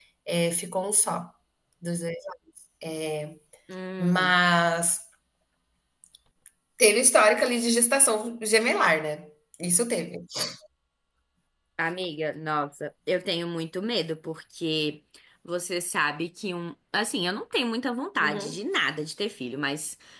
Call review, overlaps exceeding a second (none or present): none